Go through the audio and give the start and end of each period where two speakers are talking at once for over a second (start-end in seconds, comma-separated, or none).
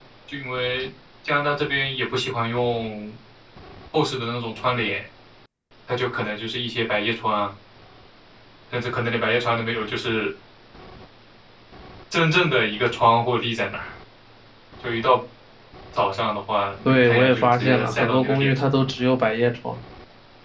16.9-18.6